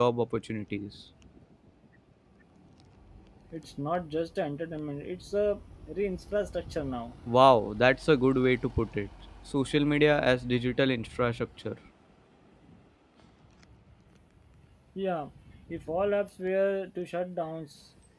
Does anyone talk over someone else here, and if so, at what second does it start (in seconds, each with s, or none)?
none